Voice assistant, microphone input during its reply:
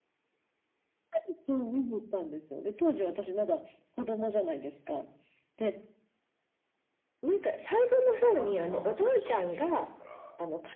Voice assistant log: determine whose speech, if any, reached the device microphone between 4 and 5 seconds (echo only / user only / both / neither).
echo only